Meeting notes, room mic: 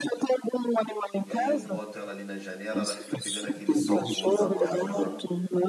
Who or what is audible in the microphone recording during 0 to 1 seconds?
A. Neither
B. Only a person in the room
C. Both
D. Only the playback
D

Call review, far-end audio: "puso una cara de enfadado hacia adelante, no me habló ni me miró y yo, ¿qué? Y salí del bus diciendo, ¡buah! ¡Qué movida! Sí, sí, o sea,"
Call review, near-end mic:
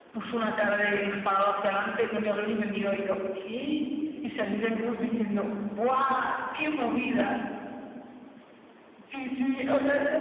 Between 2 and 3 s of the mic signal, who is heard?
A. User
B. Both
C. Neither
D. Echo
D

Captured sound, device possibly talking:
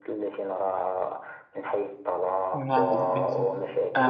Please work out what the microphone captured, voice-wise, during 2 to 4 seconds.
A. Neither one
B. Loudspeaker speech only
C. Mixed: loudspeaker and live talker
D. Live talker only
C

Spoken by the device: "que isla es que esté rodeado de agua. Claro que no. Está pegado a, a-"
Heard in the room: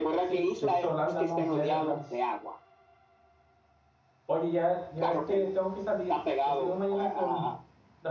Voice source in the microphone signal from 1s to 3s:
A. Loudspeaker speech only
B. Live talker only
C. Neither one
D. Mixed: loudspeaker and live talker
D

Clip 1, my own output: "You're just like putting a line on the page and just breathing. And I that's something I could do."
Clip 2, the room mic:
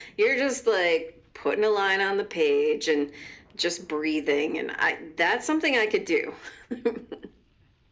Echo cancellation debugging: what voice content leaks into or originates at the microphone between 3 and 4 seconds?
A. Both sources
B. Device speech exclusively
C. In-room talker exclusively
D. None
B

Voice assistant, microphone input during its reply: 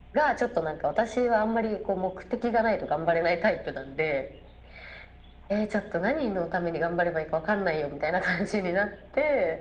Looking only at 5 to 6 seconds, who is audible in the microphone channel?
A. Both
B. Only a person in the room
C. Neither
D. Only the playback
D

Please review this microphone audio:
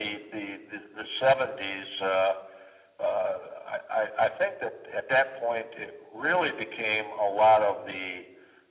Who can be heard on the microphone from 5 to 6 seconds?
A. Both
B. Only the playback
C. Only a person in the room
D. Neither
B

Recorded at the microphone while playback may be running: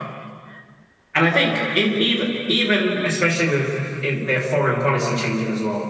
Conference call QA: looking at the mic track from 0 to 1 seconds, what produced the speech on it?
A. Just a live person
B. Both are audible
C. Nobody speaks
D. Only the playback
C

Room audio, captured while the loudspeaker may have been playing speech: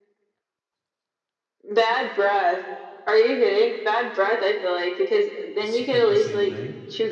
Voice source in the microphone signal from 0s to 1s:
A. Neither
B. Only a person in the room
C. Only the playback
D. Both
A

